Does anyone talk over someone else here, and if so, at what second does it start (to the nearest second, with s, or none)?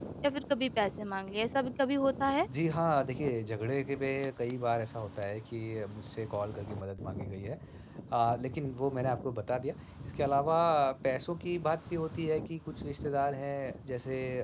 none